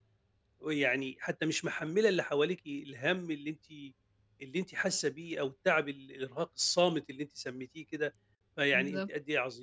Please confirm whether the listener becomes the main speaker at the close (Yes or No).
No